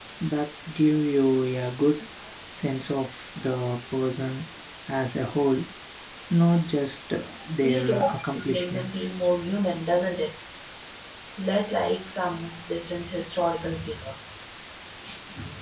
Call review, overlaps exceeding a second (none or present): present